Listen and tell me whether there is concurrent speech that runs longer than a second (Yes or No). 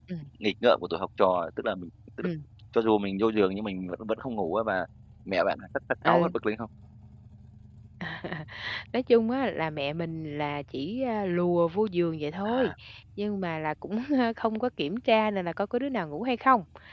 No